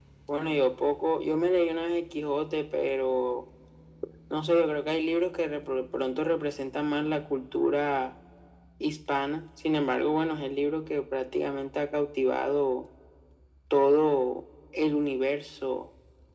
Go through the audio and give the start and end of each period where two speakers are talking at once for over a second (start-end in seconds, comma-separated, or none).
none